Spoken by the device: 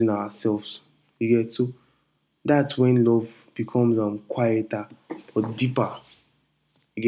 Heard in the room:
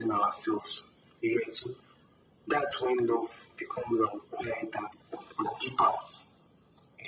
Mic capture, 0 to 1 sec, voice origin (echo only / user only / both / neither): echo only